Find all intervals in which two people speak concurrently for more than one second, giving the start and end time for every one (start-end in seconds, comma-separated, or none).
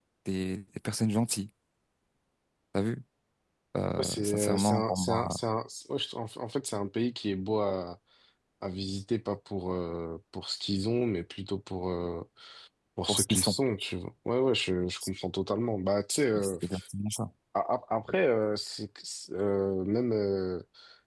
4.0-5.3